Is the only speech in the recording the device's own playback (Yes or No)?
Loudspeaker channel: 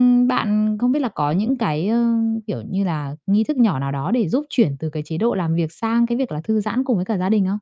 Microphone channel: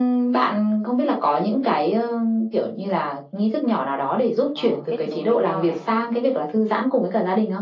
No